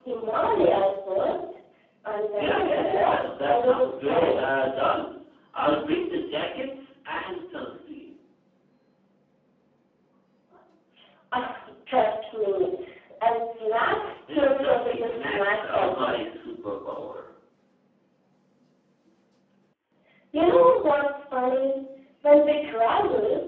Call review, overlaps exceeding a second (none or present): present